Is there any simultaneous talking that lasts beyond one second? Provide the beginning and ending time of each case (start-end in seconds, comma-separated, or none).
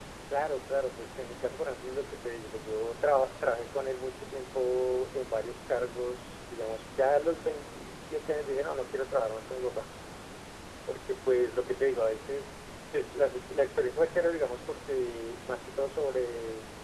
none